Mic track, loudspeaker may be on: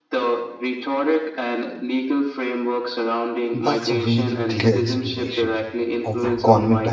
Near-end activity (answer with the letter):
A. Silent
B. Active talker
B